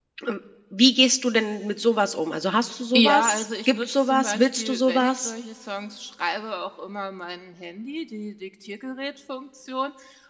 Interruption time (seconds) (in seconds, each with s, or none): 2.9 s